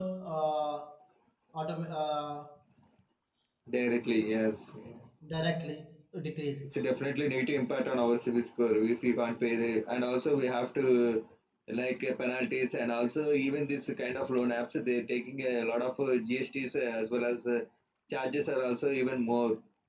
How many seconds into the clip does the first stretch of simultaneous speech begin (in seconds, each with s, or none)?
none